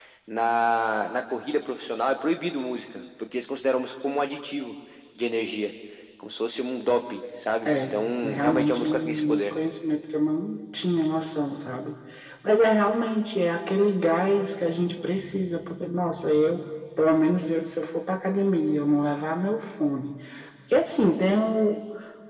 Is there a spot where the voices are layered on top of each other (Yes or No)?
Yes